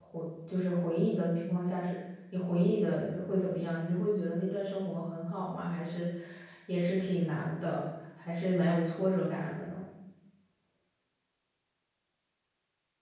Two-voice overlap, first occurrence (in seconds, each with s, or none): none